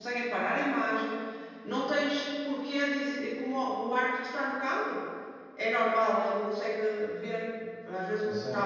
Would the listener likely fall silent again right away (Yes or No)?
Yes